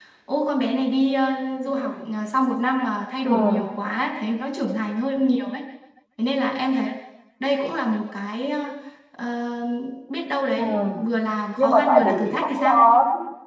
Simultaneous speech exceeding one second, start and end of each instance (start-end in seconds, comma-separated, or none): 11.6-12.8